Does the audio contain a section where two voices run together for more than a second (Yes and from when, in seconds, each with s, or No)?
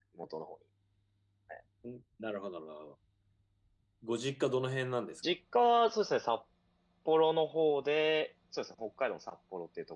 No